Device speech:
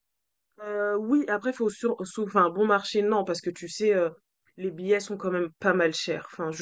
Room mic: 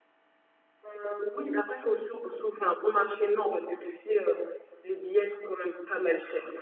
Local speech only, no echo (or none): none